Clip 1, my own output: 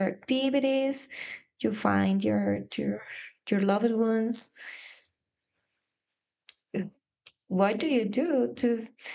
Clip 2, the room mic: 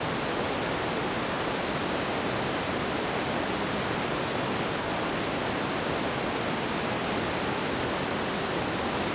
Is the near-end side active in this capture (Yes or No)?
No